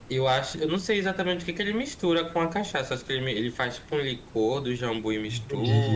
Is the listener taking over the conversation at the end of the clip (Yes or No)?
No